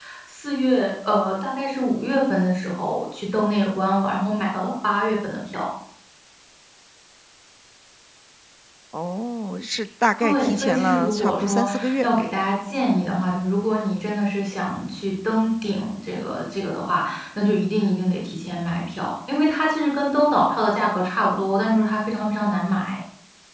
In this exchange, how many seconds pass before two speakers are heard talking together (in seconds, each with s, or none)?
10.2 s